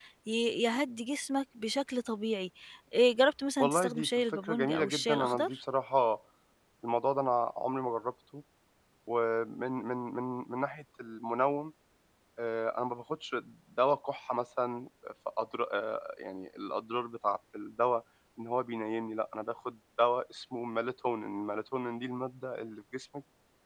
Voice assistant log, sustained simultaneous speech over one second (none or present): present